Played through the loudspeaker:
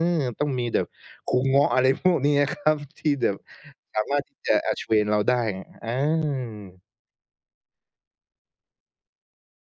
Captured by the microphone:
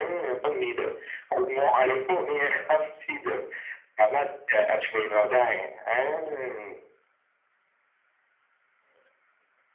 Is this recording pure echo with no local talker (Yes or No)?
Yes